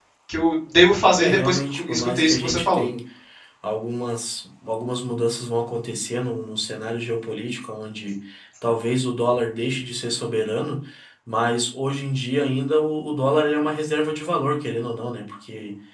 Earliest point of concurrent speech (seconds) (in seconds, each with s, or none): 1.2 s